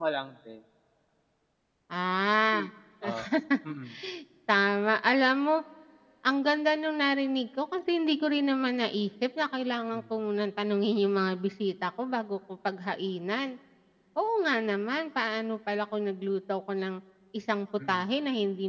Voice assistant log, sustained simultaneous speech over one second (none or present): none